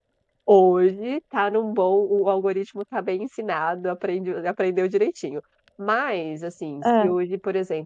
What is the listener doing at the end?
listening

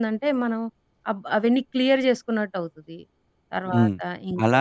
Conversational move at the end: taking over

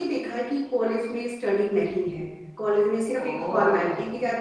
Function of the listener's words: listening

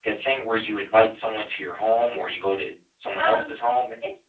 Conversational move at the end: taking over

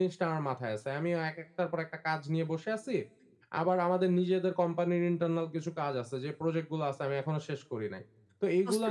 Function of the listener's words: listening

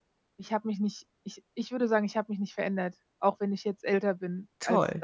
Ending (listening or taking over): listening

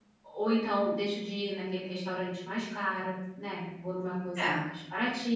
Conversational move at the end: listening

